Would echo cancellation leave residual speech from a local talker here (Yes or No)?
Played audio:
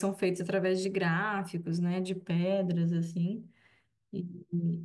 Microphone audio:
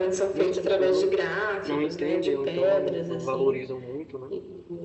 Yes